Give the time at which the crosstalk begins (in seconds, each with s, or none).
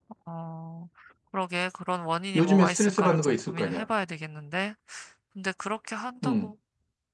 2.4 s